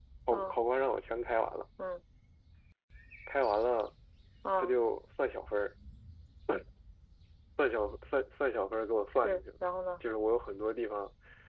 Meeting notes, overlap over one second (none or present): none